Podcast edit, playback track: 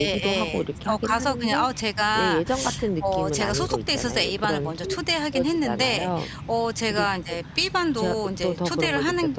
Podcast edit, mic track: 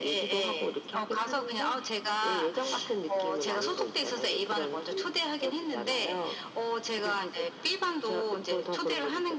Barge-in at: none

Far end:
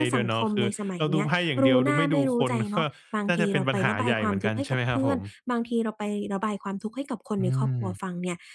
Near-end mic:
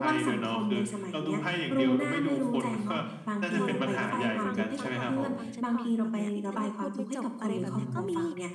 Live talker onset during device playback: 3.6 s

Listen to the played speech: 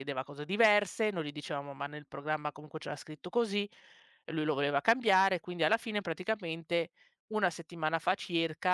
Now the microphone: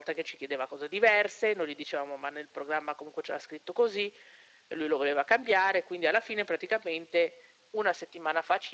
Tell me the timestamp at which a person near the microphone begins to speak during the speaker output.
none

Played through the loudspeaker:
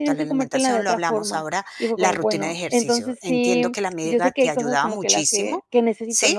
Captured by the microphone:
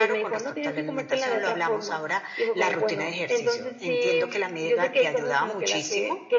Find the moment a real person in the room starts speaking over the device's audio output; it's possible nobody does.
none

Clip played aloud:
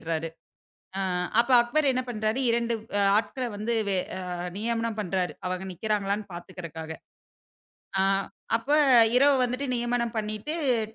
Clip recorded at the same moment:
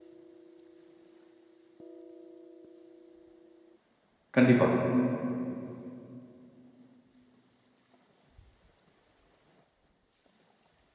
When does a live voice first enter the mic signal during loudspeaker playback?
4.4 s

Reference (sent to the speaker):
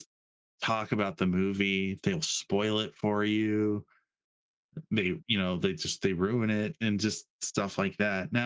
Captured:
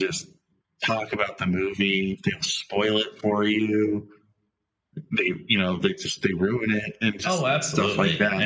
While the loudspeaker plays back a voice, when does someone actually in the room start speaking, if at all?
7.2 s

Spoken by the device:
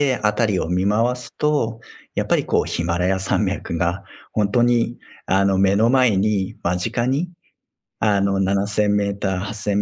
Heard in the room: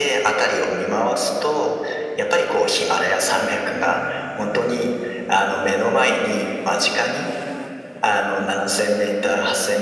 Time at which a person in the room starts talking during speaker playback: none

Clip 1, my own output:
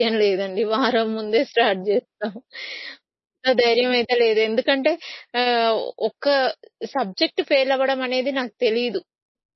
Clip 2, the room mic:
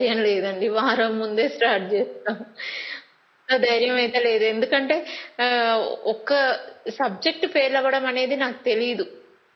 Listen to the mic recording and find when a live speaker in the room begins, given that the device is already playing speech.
none

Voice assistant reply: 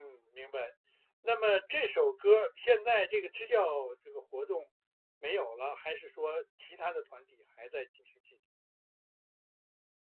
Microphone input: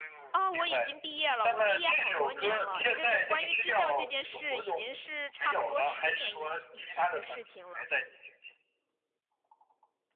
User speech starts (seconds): 0.3 s

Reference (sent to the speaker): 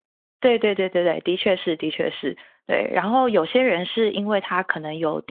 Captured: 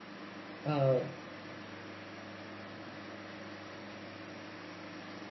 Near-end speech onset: 0.6 s

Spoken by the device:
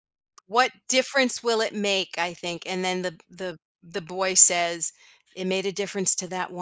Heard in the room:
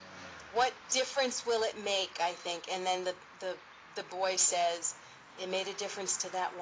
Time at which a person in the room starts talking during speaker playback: none

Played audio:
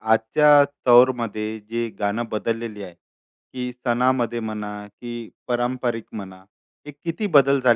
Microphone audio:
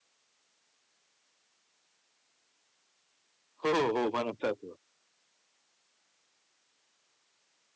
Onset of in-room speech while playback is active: 3.6 s

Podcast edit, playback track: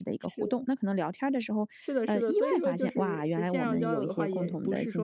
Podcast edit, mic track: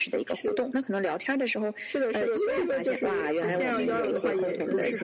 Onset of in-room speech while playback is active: 3.4 s

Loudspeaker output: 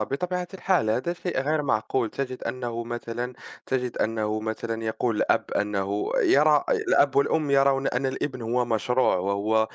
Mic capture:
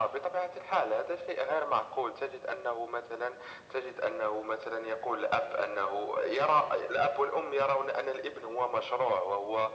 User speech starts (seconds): none

